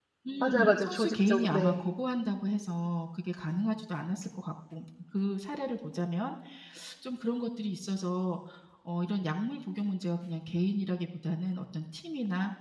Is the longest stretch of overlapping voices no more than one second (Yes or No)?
No